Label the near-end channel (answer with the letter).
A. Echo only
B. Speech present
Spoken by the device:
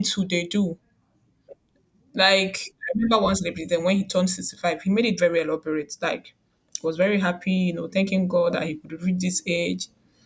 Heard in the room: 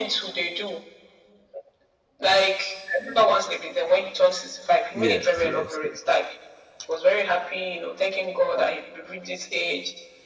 B